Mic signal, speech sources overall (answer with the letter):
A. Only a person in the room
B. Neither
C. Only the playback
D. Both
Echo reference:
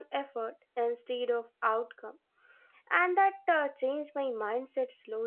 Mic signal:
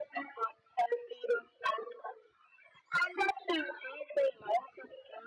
C